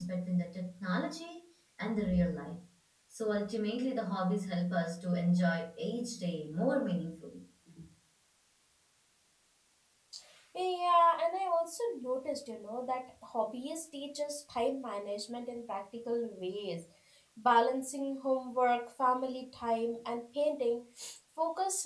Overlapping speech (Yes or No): No